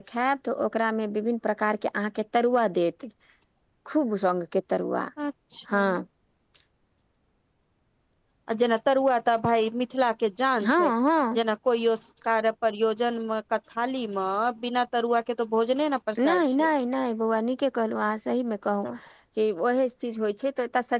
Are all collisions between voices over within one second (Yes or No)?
Yes